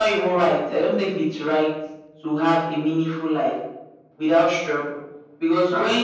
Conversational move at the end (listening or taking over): listening